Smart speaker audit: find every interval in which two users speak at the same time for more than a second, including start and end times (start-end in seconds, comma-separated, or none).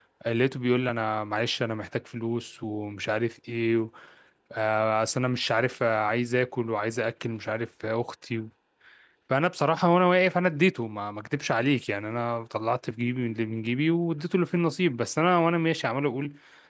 none